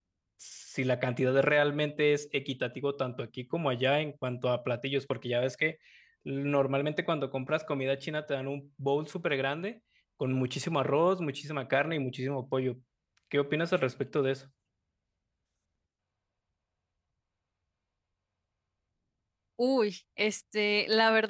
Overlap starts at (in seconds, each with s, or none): none